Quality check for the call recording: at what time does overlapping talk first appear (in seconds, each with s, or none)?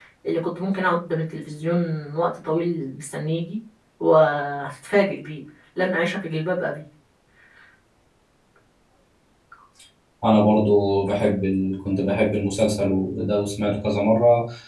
none